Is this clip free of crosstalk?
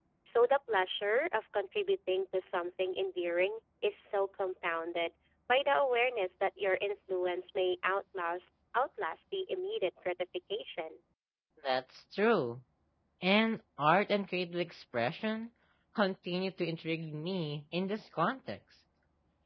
Yes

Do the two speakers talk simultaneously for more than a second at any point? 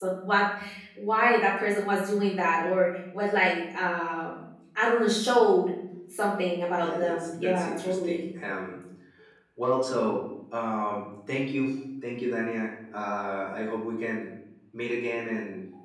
Yes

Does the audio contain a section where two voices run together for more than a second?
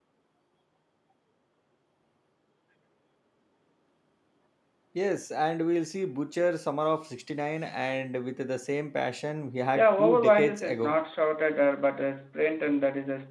Yes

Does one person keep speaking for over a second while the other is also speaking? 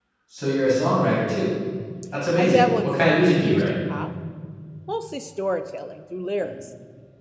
Yes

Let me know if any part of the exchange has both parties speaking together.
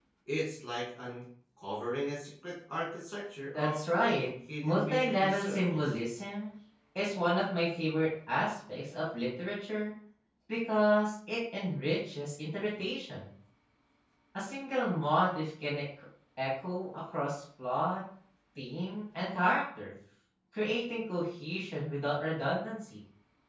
Yes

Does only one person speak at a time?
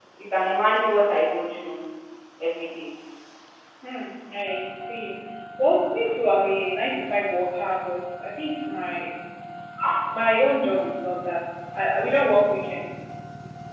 Yes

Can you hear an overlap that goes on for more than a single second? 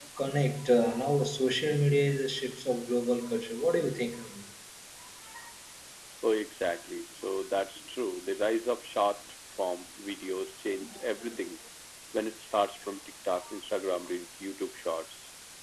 No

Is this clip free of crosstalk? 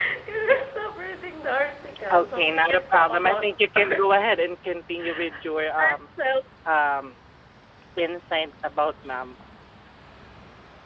No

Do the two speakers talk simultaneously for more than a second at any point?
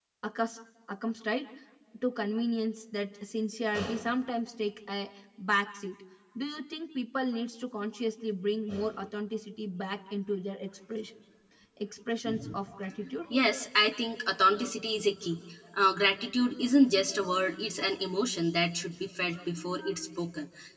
No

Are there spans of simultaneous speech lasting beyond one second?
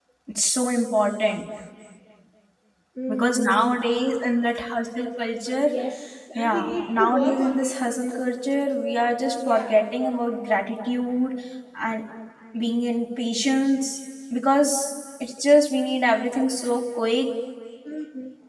Yes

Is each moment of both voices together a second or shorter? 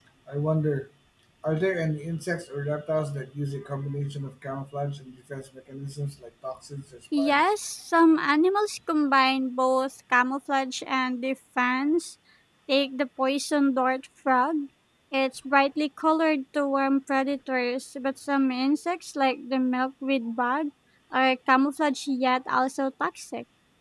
Yes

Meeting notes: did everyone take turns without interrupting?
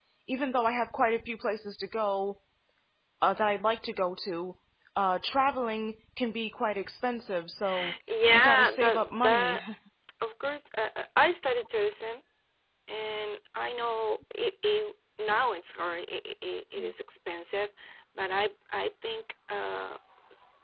No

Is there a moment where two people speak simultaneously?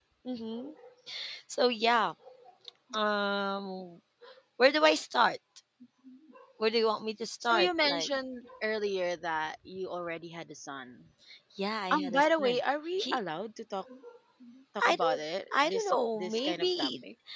Yes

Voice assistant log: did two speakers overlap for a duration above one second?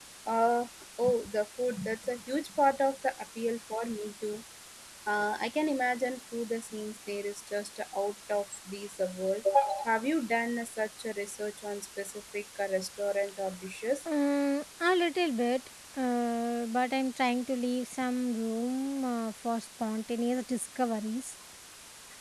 No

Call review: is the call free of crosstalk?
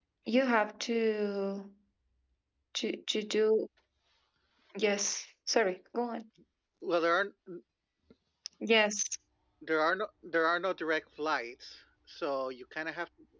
Yes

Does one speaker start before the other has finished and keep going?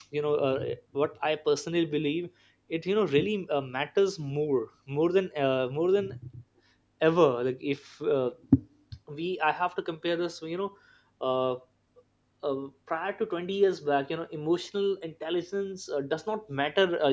No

